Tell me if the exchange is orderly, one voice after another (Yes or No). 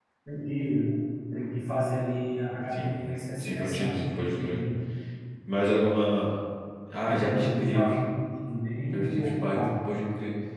No